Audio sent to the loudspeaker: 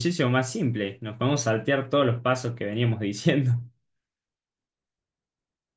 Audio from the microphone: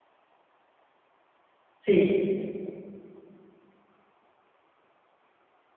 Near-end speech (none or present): present